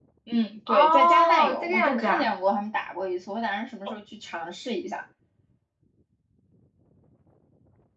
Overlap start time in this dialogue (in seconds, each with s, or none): 0.7 s